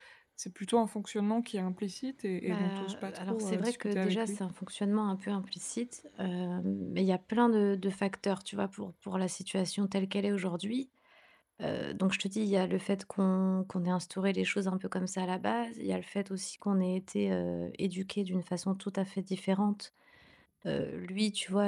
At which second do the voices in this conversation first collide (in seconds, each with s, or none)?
2.4 s